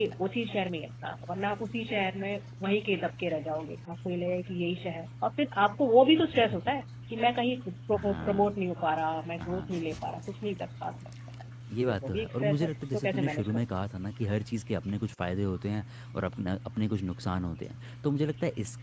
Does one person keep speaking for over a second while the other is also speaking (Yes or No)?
Yes